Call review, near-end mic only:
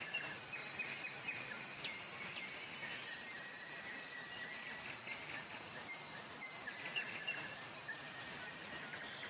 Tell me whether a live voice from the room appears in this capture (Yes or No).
No